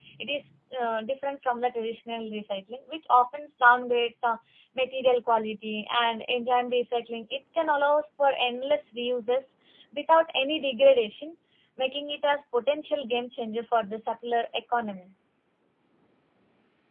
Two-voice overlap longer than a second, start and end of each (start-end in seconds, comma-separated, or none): none